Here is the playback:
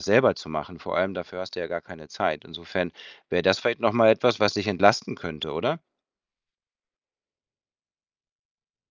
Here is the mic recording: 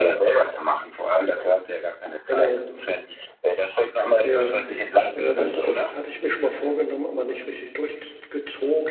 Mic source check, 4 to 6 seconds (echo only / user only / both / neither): both